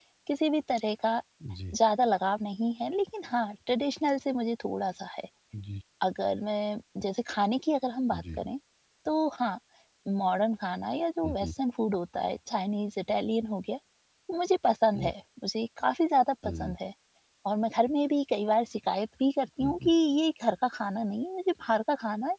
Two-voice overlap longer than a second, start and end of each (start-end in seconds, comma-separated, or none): none